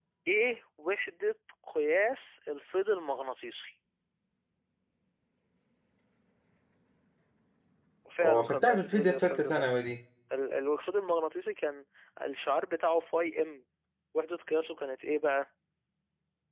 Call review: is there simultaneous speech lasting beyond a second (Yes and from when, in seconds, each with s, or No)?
Yes, from 8.2 s